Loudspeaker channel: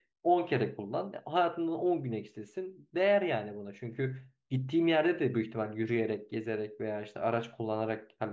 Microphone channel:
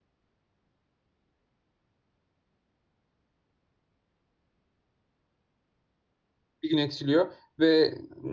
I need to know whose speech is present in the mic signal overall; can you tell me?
user only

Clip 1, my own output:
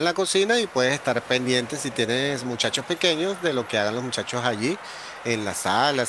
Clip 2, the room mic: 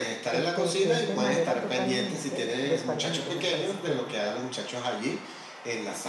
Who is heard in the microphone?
both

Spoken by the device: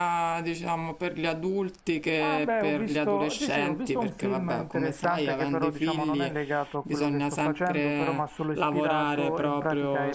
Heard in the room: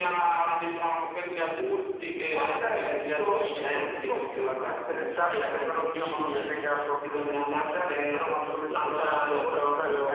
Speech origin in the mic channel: echo only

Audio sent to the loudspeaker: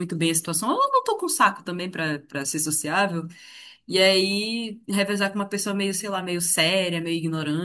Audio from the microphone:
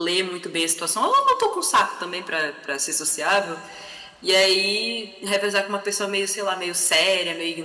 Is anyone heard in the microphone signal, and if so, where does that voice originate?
echo only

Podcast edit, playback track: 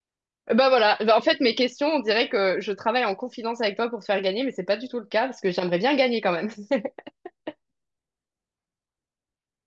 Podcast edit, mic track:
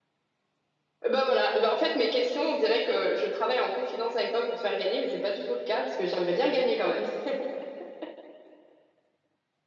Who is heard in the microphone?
echo only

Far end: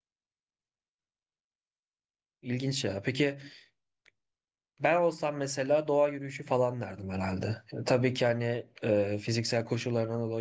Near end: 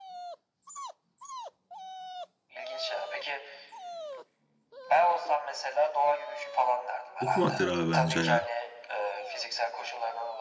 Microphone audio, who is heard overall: both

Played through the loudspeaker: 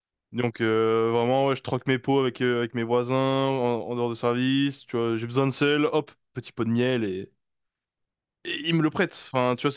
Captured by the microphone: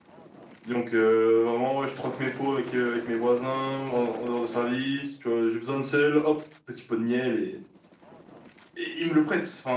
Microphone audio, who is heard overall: echo only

